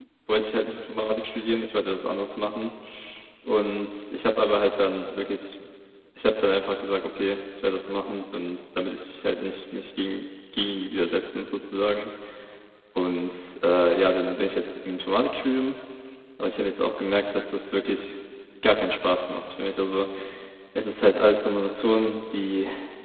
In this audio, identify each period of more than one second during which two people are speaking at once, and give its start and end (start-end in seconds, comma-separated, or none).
none